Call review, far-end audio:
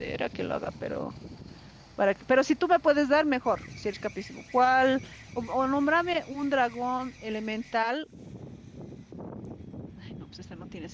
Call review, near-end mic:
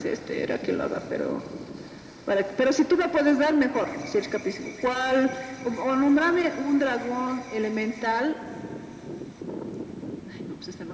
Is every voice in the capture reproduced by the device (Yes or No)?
Yes